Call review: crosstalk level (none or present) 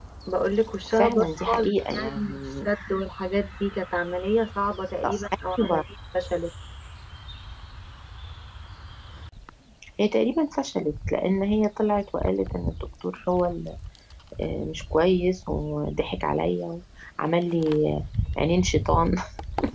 present